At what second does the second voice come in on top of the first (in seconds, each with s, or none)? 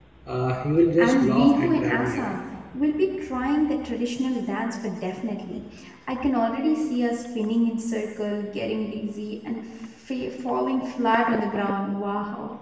1.0 s